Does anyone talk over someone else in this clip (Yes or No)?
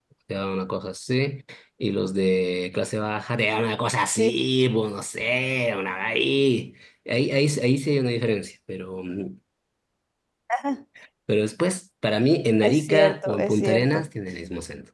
Yes